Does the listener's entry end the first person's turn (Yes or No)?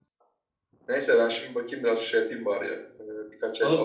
Yes